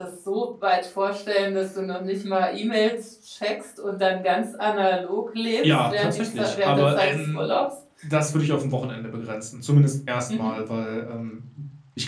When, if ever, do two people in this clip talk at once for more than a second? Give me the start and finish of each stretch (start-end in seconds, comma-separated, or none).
5.7-7.4